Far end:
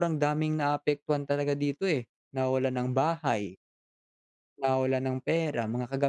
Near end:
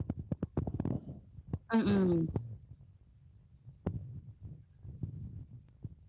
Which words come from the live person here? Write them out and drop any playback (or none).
Mm,